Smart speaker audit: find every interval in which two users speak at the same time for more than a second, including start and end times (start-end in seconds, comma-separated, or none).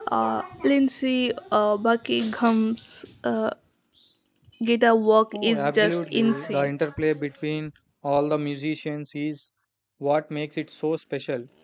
5.3-6.7